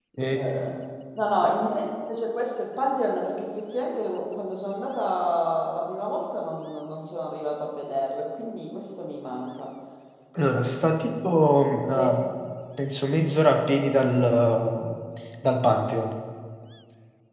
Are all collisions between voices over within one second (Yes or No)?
Yes